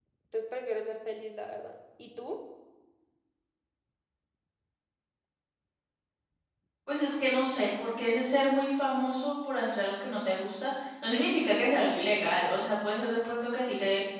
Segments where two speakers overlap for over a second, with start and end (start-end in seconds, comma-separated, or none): none